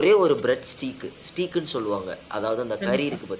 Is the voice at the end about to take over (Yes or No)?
Yes